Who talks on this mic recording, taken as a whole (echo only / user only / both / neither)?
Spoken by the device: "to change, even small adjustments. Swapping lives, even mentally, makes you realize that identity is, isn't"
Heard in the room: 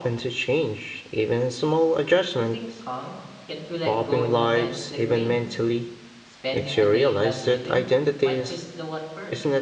both